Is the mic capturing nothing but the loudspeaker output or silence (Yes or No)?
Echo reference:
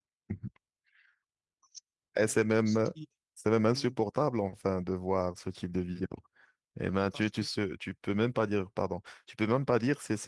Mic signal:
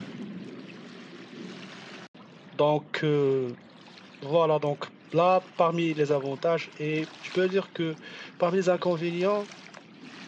No